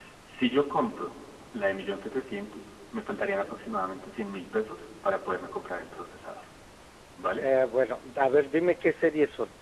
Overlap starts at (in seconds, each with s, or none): none